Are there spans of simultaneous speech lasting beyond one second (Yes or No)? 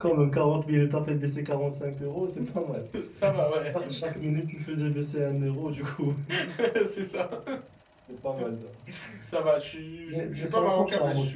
Yes